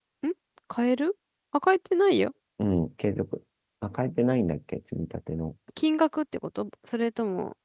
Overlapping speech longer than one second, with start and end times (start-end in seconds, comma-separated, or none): none